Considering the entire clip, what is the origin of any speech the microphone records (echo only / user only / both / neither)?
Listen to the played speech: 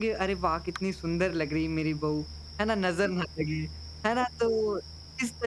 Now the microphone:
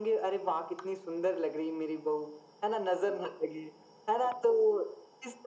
echo only